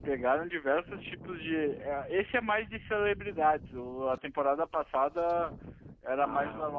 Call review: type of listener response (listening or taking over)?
listening